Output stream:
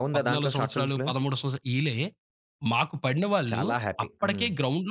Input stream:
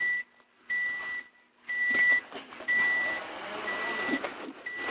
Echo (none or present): none